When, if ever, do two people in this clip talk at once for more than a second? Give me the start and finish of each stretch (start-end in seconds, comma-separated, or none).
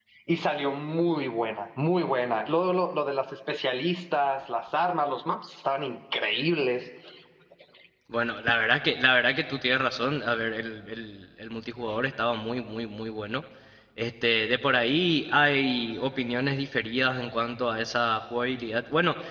none